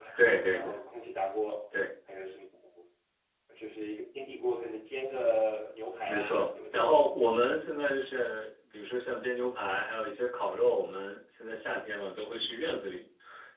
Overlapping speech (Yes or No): Yes